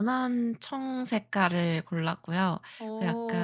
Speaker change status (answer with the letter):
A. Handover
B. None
B